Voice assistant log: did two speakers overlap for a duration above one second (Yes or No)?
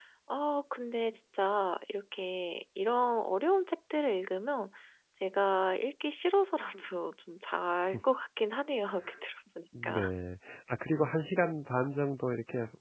No